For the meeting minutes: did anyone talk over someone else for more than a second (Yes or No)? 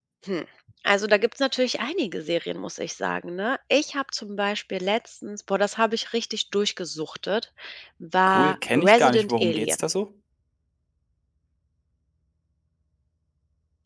Yes